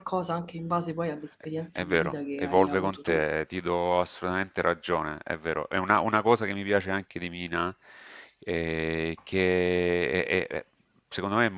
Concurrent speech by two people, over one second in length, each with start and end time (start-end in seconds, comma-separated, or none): 1.8-3.2